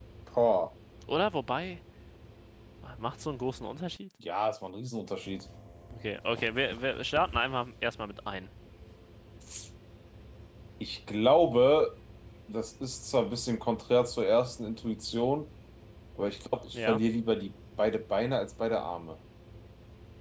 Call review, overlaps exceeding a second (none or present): none